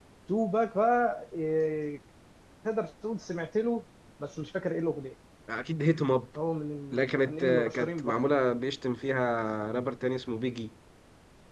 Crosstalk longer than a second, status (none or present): present